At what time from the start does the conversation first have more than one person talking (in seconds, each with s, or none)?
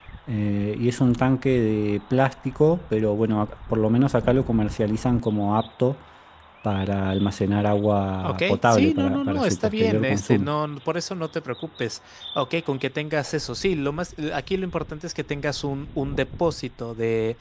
8.2 s